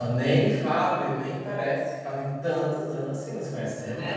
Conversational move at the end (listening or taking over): taking over